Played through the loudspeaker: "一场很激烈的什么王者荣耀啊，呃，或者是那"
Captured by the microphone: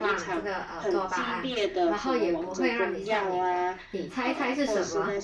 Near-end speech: present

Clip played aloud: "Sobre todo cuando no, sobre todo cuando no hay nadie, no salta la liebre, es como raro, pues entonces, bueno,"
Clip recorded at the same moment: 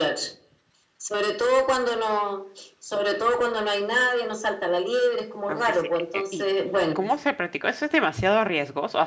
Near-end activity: present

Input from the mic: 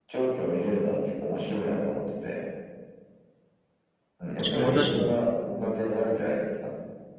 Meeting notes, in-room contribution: present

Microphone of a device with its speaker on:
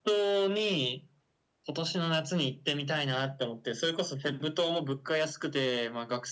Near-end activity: none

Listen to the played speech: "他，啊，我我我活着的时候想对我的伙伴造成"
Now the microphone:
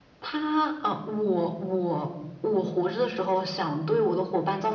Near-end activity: none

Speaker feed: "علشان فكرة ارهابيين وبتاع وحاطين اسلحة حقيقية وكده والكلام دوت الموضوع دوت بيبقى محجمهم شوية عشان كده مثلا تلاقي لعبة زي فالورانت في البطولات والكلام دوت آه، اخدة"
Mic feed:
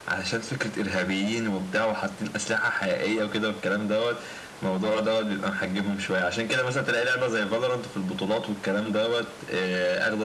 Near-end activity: none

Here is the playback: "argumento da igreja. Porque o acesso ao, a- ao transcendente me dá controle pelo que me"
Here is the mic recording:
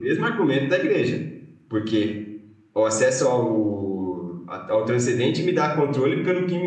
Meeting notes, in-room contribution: none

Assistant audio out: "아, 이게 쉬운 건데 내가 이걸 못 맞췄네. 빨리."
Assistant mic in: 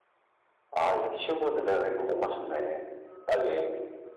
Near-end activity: none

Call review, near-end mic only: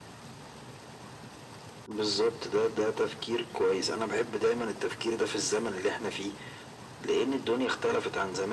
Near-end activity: none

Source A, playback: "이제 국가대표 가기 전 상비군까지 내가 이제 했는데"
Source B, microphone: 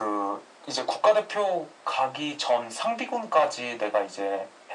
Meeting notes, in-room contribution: none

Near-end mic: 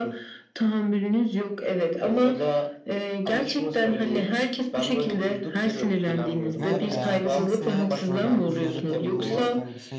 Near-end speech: present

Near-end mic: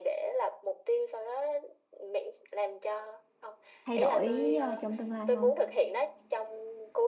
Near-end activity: present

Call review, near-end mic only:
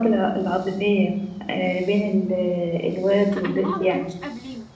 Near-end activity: present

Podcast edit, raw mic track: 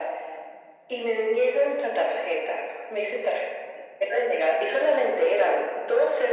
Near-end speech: none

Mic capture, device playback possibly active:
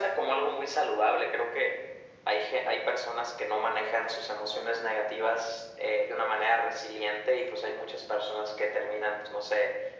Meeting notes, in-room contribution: none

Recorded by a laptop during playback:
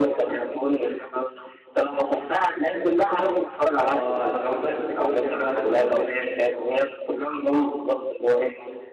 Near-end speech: present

